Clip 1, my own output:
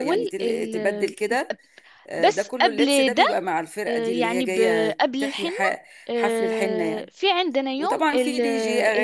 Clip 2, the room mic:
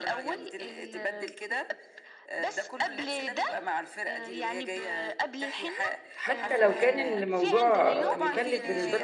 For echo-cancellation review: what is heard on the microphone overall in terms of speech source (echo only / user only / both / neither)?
both